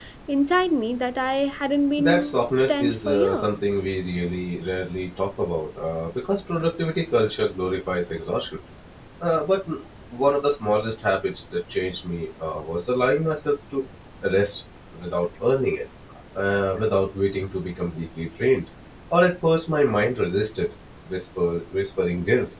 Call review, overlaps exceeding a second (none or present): present